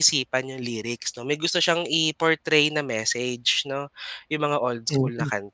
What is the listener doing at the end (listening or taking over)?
listening